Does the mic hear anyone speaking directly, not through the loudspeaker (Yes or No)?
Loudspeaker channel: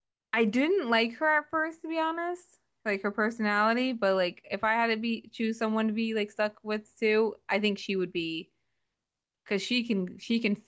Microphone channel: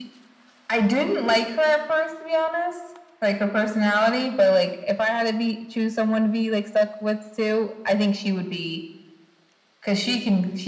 No